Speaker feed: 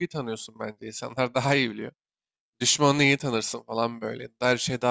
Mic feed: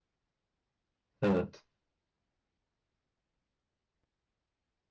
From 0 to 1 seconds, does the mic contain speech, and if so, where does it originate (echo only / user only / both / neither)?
neither